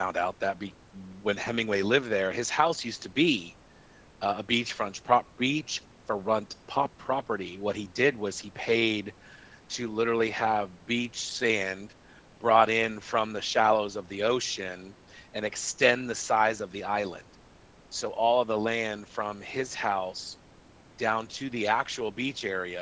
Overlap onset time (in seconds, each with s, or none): none